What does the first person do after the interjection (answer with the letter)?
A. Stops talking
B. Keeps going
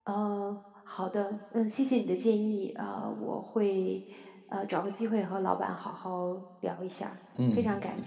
A